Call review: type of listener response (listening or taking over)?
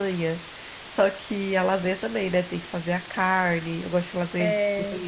listening